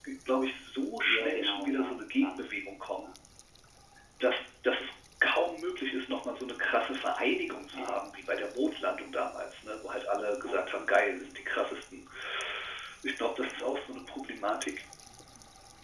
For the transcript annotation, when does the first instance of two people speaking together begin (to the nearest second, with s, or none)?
1 s